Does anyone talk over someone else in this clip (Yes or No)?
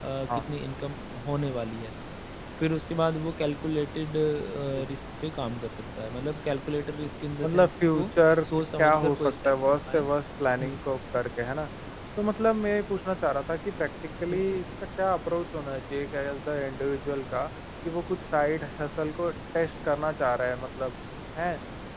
Yes